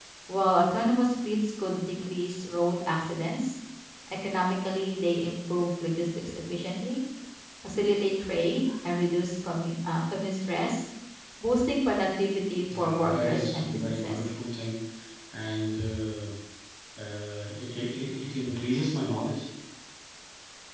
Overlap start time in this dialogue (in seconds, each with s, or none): 12.7 s